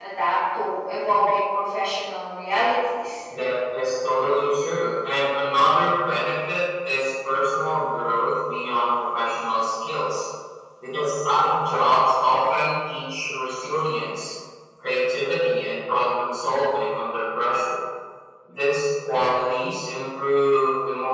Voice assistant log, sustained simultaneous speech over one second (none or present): none